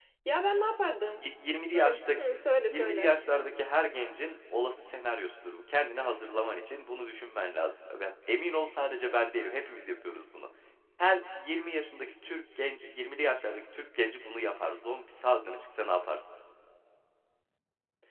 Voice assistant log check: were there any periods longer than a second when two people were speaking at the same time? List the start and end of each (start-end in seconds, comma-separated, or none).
none